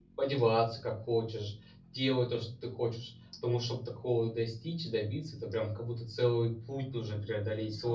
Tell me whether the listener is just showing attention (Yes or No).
No